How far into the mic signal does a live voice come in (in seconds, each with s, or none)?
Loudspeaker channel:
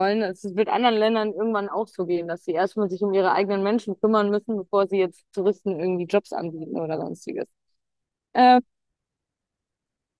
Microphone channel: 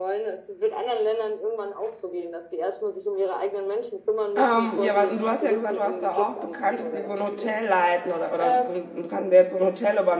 4.4 s